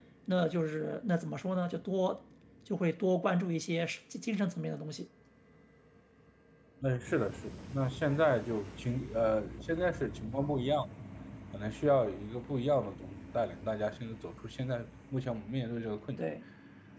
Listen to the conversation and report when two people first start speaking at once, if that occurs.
none

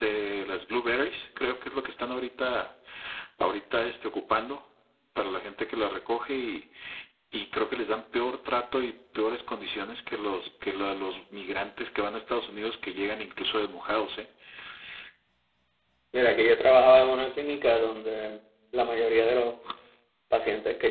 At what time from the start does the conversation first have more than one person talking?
none

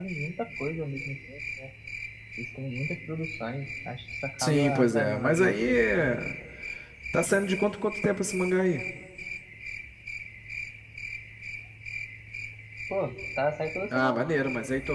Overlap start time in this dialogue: 4.4 s

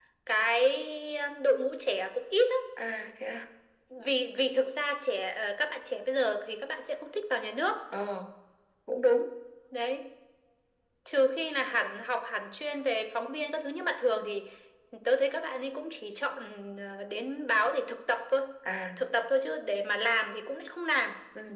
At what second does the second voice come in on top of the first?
none

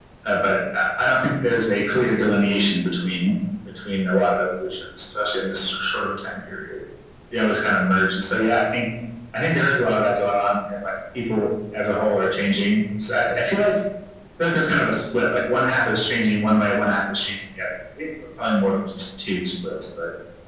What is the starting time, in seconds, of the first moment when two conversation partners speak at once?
none

